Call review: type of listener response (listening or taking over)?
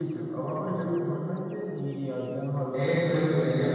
taking over